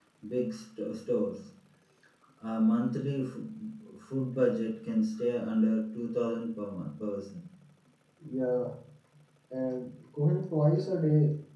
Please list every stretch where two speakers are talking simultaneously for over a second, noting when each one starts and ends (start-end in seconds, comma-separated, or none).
none